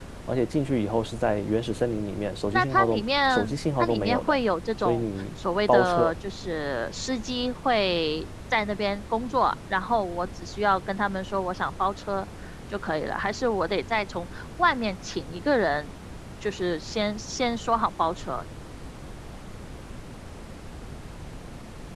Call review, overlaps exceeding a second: present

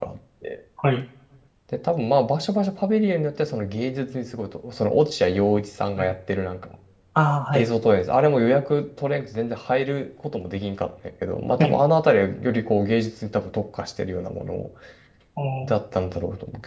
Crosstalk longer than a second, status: none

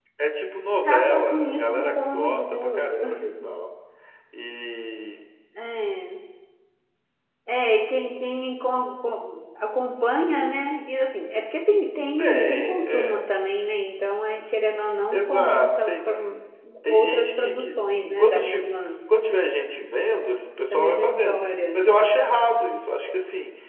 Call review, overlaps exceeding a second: present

